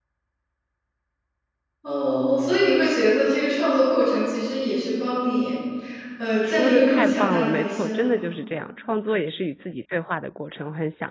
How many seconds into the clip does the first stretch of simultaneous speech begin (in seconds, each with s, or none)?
6.4 s